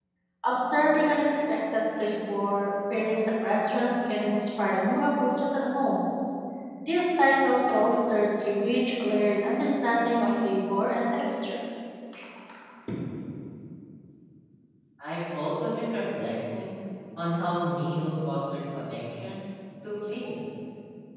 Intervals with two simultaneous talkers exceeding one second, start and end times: none

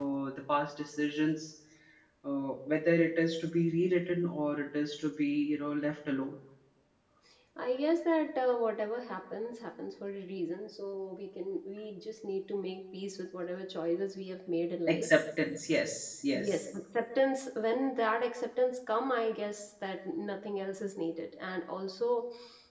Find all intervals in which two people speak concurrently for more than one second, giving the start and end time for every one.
none

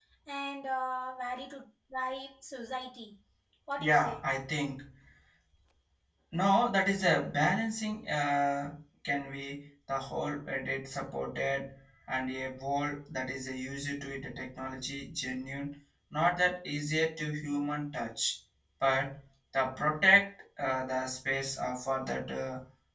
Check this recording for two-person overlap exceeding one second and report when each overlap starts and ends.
none

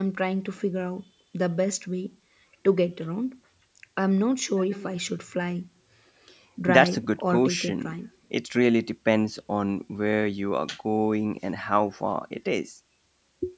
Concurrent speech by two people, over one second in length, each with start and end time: 6.7-7.9

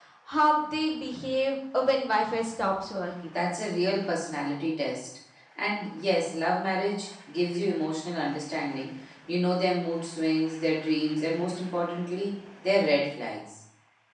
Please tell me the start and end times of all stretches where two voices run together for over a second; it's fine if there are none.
none

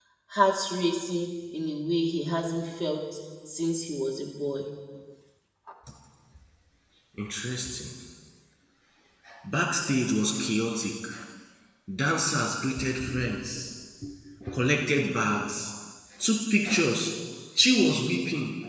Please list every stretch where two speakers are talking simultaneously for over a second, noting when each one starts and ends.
none

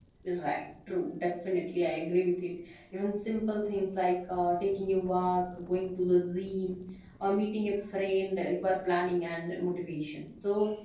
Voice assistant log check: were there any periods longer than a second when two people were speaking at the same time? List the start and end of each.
none

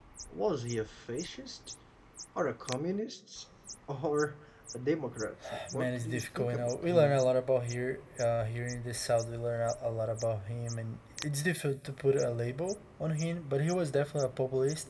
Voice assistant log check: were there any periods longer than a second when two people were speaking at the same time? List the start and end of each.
5.7-7.2

